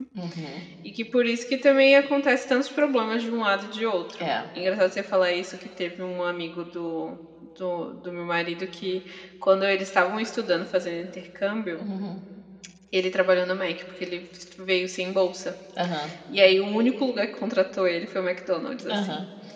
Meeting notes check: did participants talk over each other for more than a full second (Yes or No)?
No